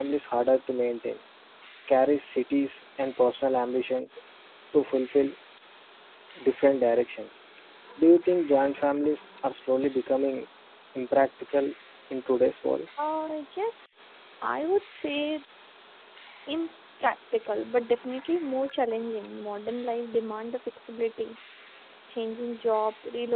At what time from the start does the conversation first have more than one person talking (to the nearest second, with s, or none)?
none